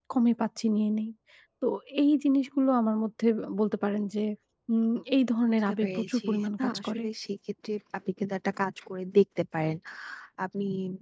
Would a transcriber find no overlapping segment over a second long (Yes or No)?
No